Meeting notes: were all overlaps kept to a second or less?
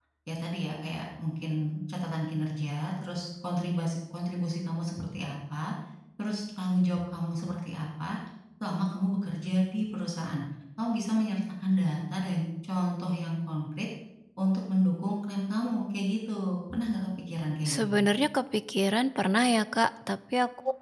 Yes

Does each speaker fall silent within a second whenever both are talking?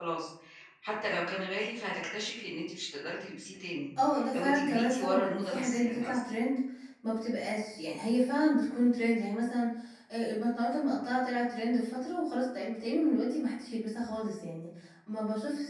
No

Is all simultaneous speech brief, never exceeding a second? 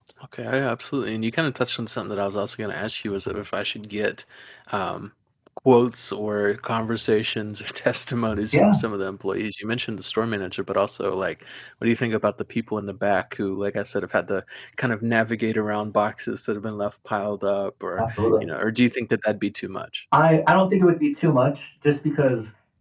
Yes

